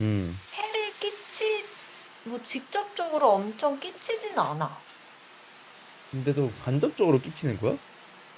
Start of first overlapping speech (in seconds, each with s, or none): none